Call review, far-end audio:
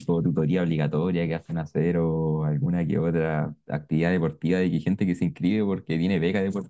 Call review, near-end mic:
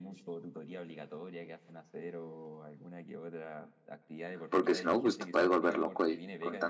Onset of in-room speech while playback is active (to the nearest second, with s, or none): 4 s